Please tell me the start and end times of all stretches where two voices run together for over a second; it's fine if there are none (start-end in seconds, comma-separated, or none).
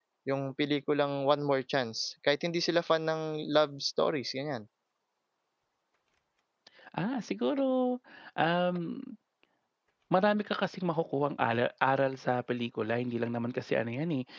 none